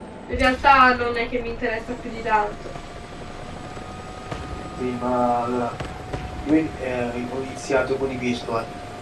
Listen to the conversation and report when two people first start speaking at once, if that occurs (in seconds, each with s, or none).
none